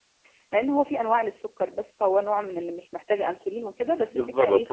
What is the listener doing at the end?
taking over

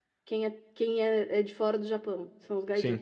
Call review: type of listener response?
taking over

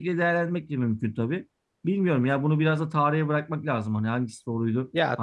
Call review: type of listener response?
taking over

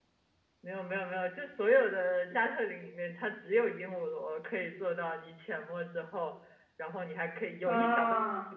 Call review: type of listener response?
listening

